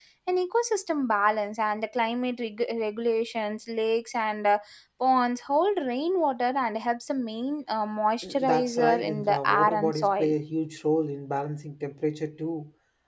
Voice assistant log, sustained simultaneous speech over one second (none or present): present